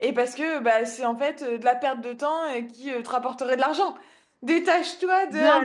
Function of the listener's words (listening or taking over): listening